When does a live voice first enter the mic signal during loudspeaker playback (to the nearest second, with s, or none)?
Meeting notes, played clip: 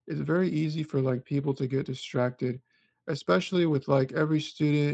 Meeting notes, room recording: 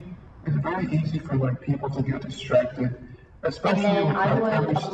4 s